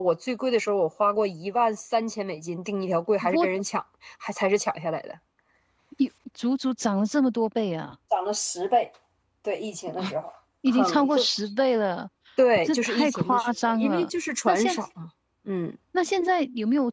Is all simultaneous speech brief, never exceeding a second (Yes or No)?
No